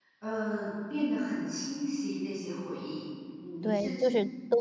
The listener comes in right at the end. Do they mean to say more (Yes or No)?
Yes